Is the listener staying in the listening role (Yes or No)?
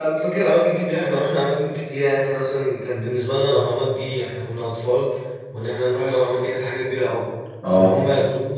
Yes